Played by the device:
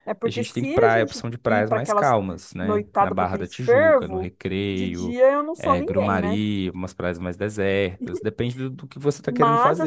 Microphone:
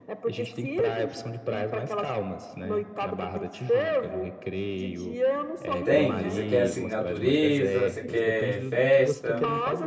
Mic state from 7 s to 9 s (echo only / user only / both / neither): both